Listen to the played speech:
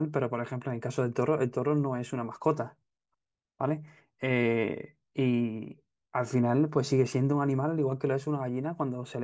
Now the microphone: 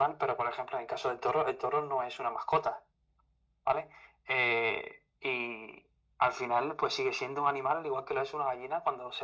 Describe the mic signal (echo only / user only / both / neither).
echo only